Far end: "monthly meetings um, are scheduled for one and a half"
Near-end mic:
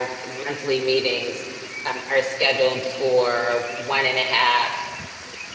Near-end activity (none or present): none